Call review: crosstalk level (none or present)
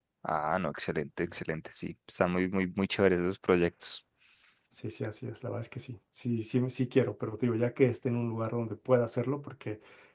none